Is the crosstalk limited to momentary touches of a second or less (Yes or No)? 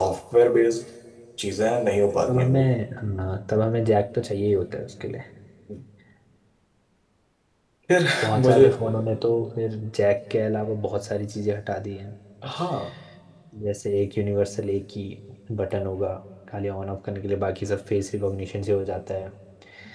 Yes